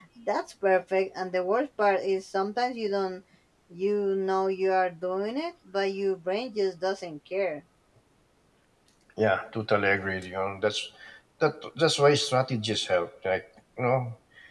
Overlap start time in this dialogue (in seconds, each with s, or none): none